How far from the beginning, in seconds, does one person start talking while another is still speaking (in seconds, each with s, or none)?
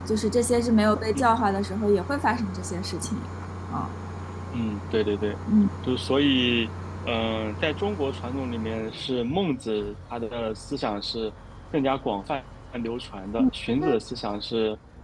none